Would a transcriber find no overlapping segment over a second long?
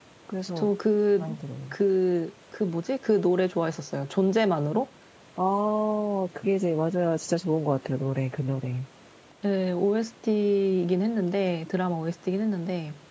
Yes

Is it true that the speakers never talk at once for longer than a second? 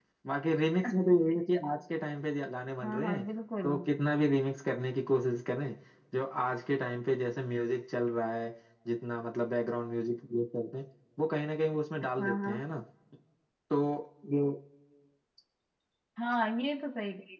Yes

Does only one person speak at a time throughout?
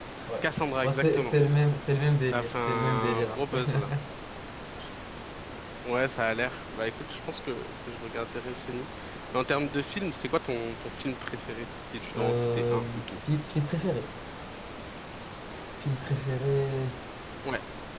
No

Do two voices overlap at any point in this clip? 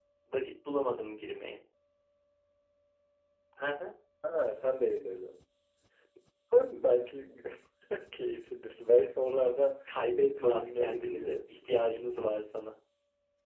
Yes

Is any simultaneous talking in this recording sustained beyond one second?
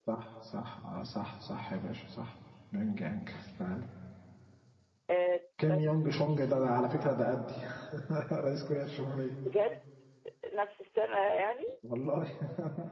No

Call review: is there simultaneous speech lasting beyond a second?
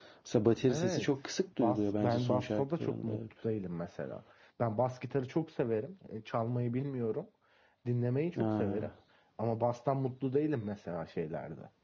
Yes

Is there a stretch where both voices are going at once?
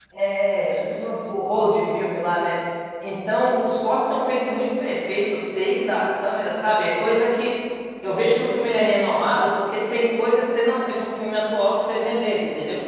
No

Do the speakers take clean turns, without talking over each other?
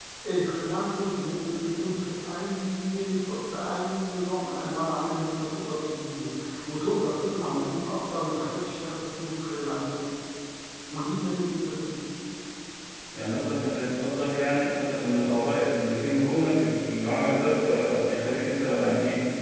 Yes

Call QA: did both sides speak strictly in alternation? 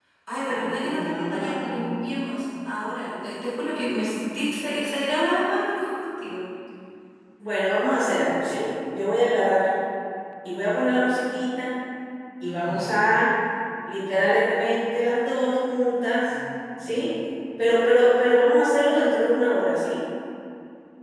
No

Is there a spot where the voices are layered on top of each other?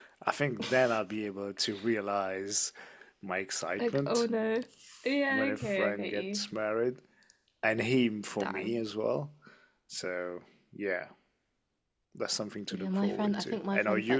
Yes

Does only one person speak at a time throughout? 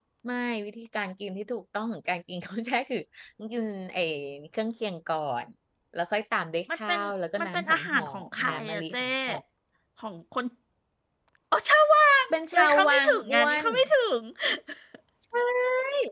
No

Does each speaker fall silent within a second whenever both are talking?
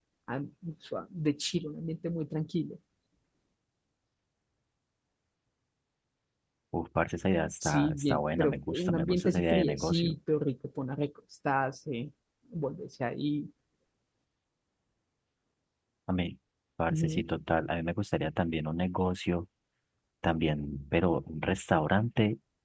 No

